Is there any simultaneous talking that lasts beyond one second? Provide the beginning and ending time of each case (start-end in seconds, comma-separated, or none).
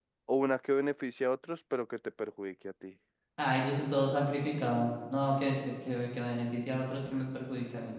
none